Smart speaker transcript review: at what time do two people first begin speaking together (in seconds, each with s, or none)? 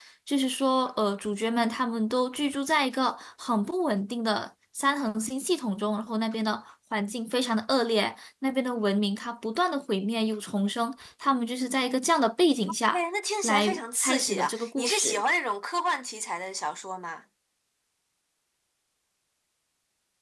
13.4 s